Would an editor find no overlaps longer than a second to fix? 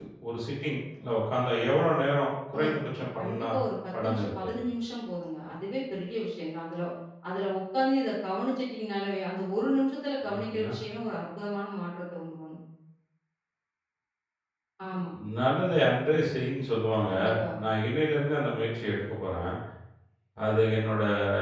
Yes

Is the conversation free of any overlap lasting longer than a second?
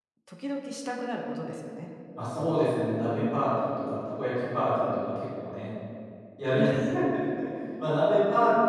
Yes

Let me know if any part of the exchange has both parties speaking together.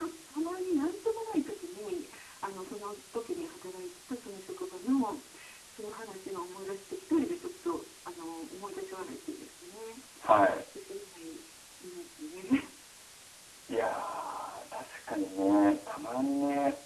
No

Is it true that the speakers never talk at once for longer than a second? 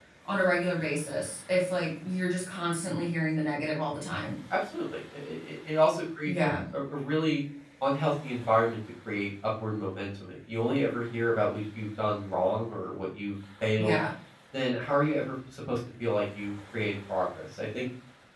Yes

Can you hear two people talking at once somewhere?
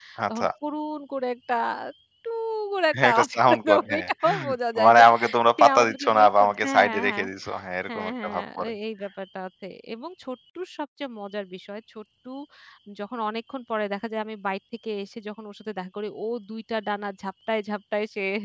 Yes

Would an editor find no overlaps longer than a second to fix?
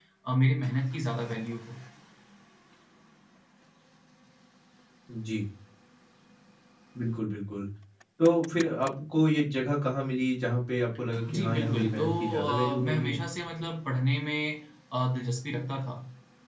No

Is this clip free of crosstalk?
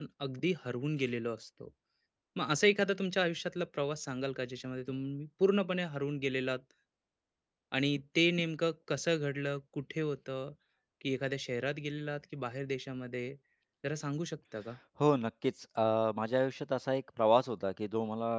Yes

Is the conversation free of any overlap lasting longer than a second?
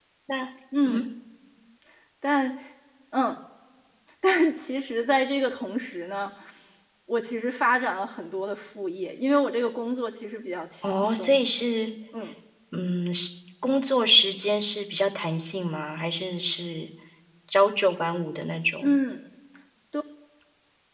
Yes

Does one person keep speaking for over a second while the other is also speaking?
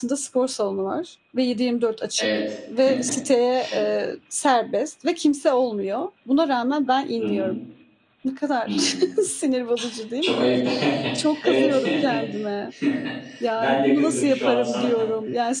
Yes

